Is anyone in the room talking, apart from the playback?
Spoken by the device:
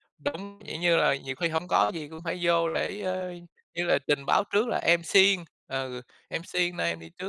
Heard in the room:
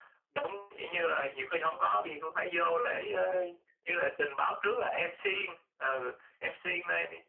No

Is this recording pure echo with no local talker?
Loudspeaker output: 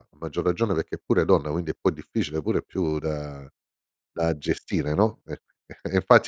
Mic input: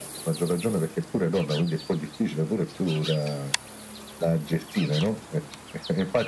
Yes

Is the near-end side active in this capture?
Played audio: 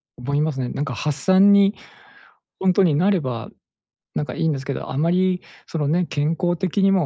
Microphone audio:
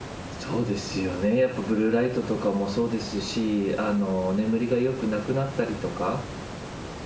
Yes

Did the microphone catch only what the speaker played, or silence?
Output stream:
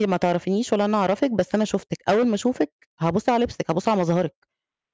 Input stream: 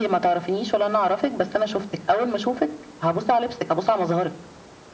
Yes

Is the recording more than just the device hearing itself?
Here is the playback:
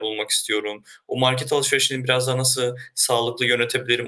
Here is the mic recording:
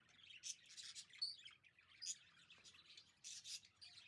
No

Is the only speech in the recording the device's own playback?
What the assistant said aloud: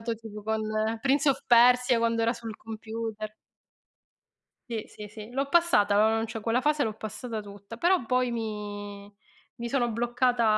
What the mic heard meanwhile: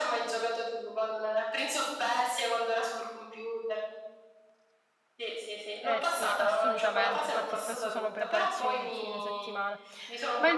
No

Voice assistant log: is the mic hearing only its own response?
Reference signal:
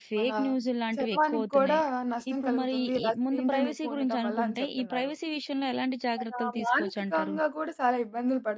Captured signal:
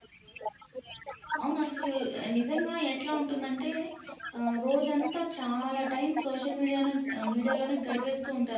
No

